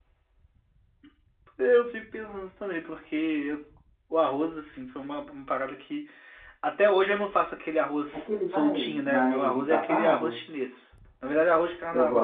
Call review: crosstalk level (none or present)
present